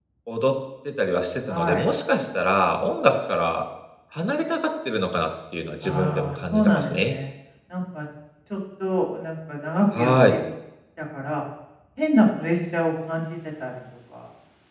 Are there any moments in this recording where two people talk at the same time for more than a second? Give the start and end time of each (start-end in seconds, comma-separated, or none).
5.8-7.2